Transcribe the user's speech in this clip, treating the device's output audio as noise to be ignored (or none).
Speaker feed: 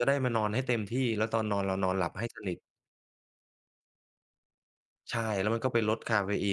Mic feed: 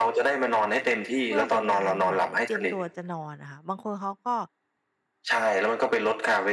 เพื่อเป็นการเหมือนเตรียมตัวจะนอนอะค่ะบางคนเขาก็